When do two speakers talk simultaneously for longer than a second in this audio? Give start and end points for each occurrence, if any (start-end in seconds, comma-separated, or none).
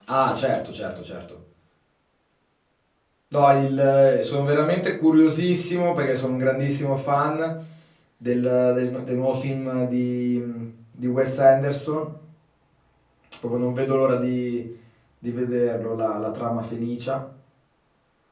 none